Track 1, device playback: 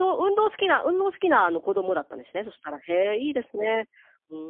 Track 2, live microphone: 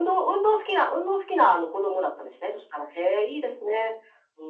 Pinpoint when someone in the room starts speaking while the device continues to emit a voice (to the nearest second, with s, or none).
none